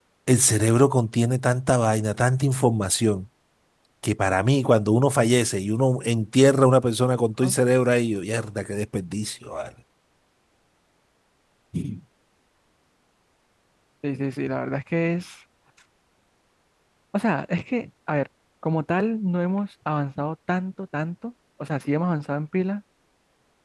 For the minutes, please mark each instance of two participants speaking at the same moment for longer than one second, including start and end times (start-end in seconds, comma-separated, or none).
none